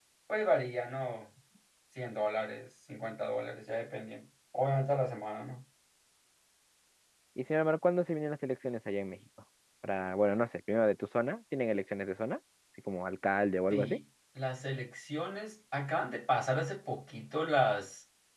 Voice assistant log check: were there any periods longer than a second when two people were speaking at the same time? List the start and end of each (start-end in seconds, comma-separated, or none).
none